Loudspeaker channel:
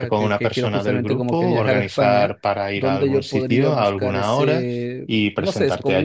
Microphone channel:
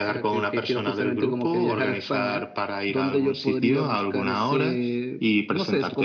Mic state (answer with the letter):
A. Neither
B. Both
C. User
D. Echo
D